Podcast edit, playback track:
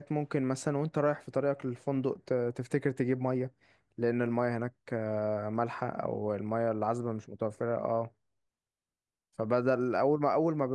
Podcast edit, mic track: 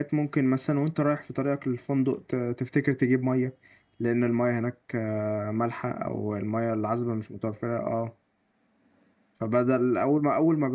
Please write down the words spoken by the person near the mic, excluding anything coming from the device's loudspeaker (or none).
none